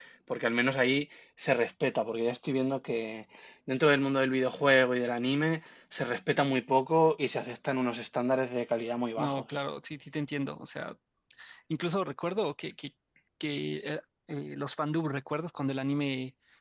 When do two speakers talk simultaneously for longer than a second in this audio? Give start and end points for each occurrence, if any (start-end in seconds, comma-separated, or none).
none